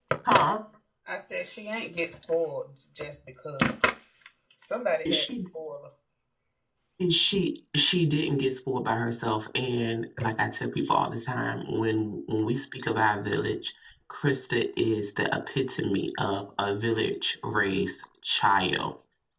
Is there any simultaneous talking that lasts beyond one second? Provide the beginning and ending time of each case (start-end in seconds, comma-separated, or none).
none